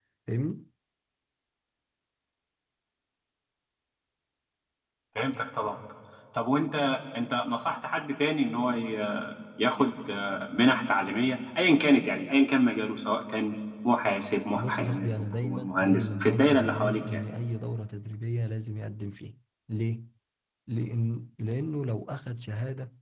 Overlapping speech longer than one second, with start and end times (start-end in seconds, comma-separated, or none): 14.5-17.2